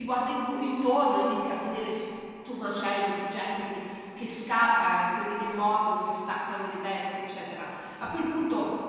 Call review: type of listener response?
listening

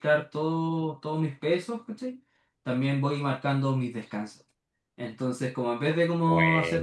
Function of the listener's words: listening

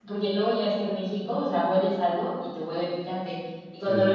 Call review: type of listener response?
listening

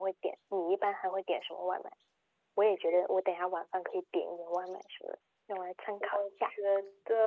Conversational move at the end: taking over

